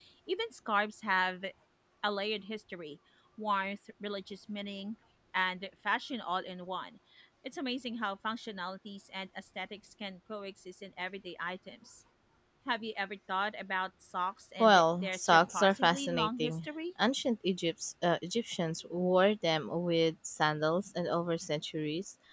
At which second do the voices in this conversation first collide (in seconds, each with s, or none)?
14.6 s